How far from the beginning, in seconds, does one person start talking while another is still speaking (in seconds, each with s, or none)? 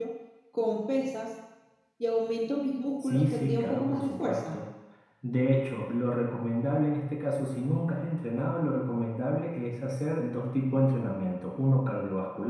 3.0 s